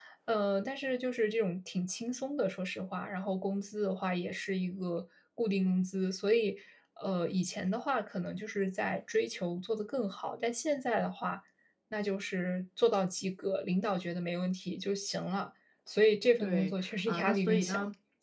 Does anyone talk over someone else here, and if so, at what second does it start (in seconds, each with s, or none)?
16.4 s